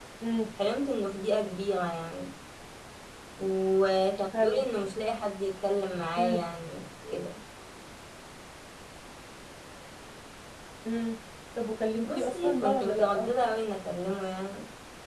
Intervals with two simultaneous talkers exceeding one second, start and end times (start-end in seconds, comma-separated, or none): 12.0-13.3